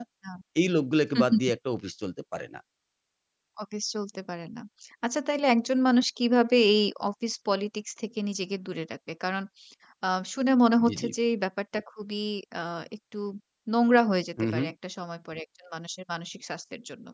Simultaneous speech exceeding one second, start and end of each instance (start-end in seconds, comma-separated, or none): none